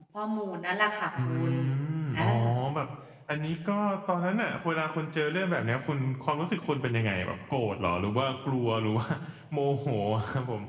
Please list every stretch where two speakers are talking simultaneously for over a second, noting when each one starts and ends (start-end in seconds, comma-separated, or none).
none